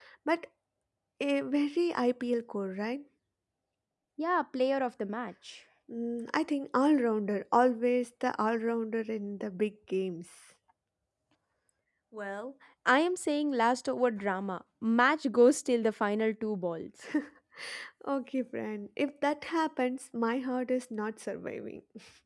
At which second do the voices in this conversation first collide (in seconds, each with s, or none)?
none